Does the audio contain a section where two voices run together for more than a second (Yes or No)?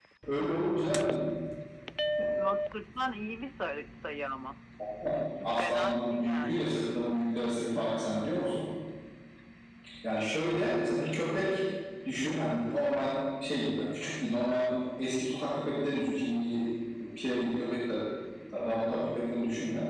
Yes